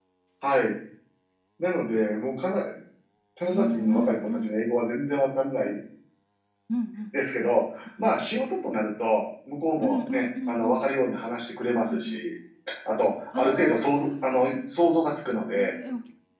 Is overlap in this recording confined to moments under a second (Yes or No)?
No